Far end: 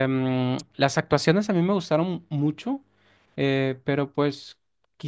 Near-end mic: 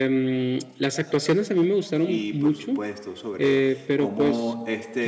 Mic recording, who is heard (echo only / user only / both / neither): both